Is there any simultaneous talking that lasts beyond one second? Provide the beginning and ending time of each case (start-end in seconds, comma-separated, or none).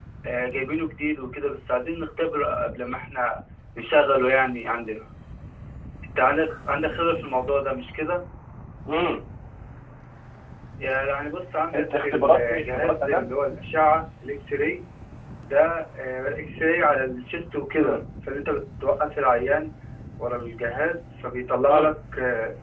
11.7-13.3